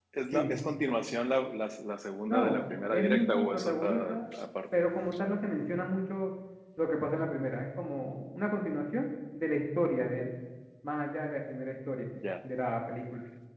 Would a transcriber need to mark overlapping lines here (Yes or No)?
Yes